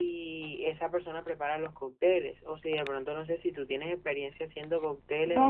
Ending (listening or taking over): taking over